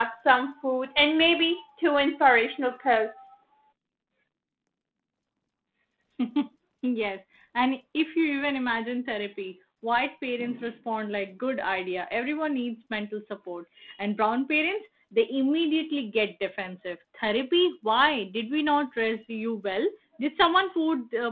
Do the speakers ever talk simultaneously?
No

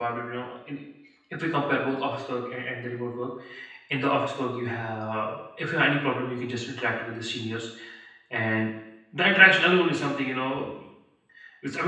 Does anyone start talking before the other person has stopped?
No

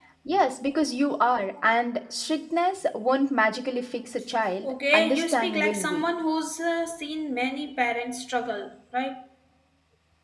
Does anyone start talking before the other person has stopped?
Yes, from 4.6 s

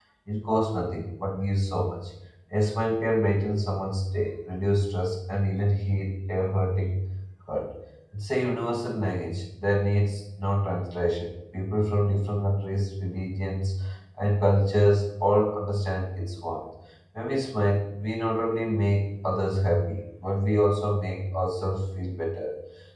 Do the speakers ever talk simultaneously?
No

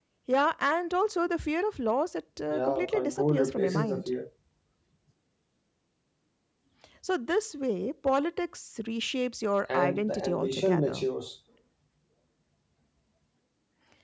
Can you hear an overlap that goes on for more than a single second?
Yes, from 2.5 s

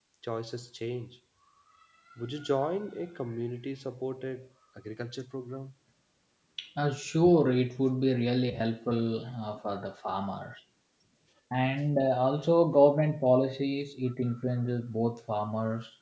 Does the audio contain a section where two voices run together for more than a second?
No

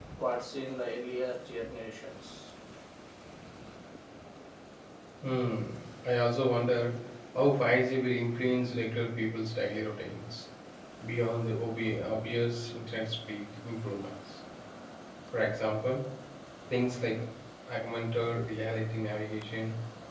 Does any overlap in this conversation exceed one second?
No

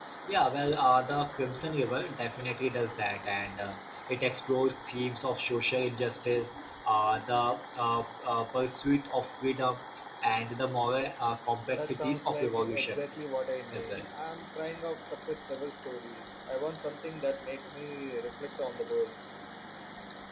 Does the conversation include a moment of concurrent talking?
Yes, from 11.7 s

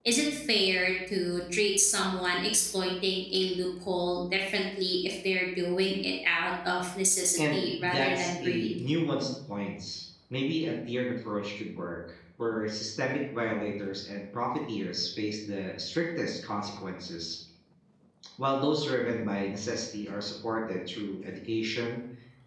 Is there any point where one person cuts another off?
Yes, from 7.4 s

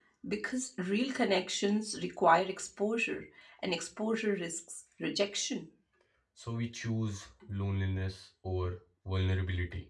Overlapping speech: No

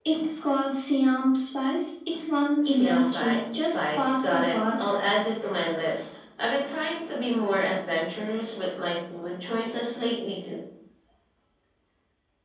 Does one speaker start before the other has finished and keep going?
Yes, from 2.6 s

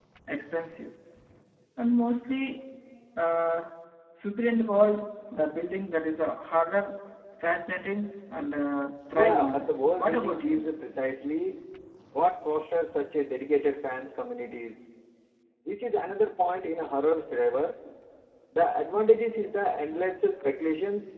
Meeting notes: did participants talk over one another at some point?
Yes, from 9.1 s

